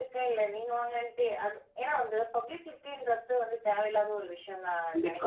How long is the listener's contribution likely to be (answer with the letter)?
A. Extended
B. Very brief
A